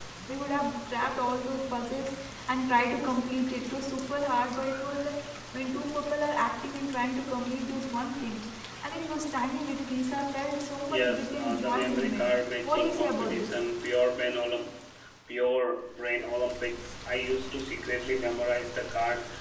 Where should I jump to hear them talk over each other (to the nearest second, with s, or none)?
11 s